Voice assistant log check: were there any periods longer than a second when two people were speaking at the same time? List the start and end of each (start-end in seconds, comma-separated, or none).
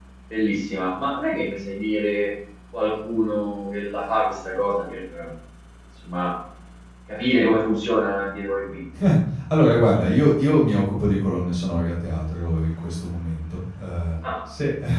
none